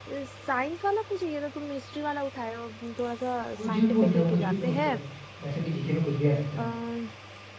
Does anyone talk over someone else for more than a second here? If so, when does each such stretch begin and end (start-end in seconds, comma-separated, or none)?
3.6-5.0